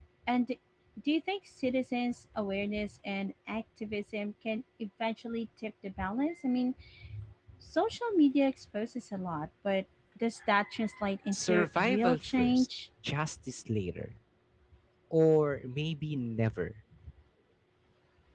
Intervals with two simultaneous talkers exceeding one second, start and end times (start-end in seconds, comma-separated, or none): 11.3-12.7